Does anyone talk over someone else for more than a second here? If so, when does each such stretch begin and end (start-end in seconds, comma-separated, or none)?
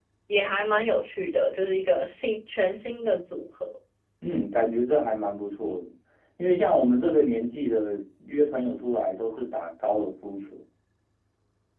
none